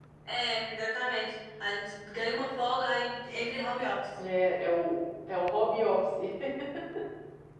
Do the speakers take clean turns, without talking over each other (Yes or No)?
Yes